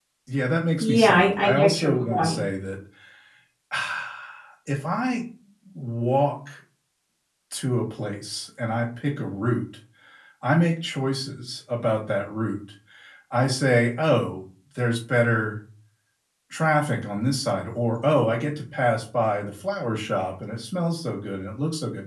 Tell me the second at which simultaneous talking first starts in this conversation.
1 s

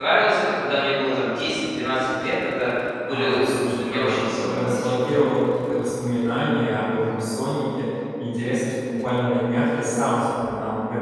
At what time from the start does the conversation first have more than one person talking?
3 s

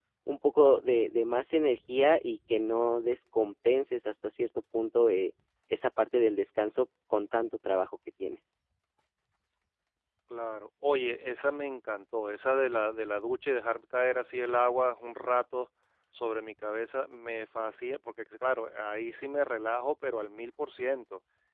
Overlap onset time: none

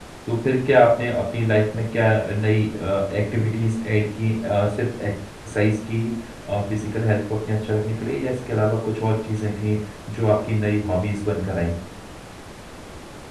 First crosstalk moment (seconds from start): none

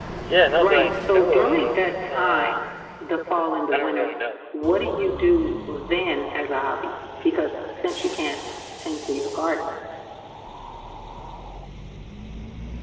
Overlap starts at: 1 s

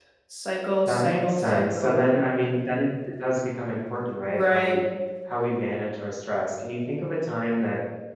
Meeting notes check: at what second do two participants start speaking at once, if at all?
1 s

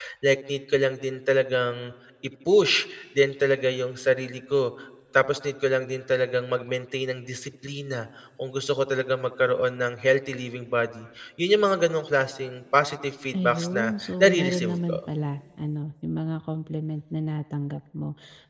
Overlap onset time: 13 s

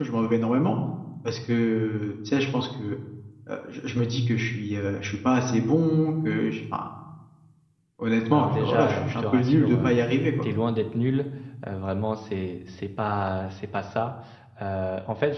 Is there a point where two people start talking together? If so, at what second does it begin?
8 s

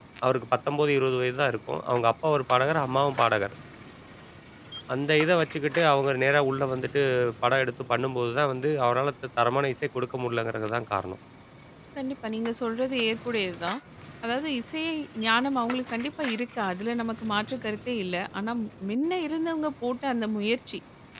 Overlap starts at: none

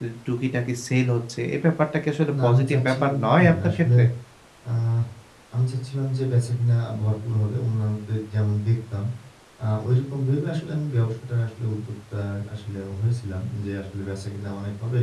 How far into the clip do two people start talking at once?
2 s

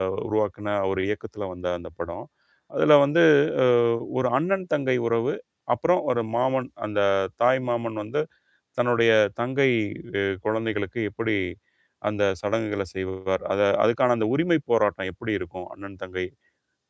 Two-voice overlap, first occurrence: none

